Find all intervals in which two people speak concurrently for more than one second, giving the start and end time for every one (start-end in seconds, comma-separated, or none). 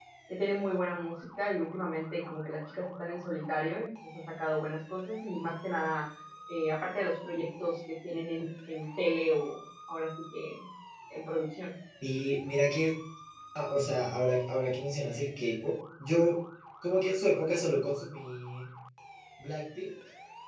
none